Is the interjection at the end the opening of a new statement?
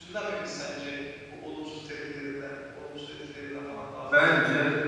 Yes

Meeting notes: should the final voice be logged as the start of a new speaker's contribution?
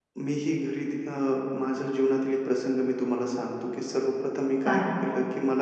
No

